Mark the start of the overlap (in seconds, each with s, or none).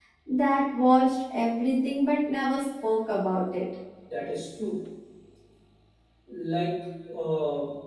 none